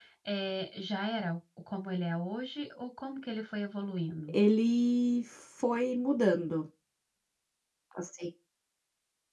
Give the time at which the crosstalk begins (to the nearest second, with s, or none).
none